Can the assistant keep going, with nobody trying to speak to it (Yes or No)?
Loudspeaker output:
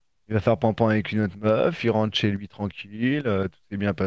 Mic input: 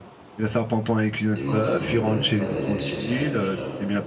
No